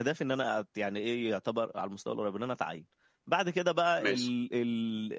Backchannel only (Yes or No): Yes